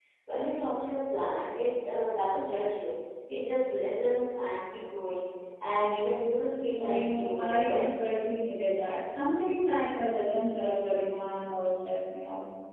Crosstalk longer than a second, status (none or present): present